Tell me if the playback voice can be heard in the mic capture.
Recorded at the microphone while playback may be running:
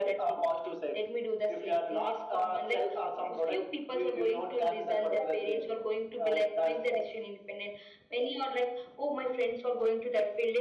Yes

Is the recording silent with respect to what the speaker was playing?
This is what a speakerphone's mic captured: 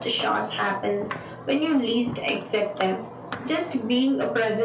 No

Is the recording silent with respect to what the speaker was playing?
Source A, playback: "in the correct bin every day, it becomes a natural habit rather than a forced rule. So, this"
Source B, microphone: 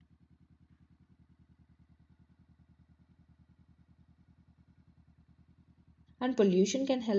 Yes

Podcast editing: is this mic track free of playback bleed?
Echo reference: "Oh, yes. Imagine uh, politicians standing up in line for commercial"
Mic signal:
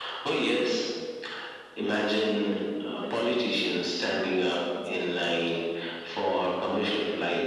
No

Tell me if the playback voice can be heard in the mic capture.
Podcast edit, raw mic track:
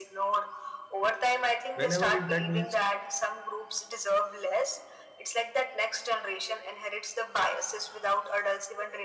Yes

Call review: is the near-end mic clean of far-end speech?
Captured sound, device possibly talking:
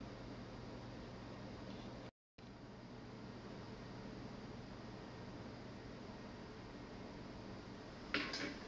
Yes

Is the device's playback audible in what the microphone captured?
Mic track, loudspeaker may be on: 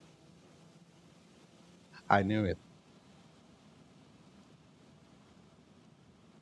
No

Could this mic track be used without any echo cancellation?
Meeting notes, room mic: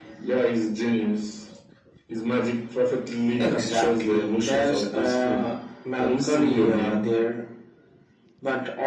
No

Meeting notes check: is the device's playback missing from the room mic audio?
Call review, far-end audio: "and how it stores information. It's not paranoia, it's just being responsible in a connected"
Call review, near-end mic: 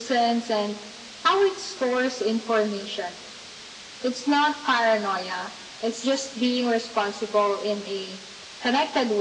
No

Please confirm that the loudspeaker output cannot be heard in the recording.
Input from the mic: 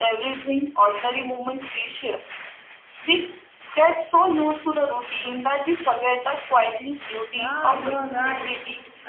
No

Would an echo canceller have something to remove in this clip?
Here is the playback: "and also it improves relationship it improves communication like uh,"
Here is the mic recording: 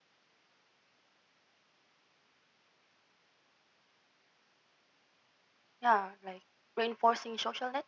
No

